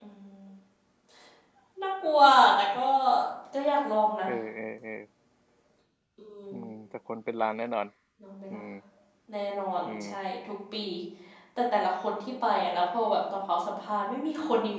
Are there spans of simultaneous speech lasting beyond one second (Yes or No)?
No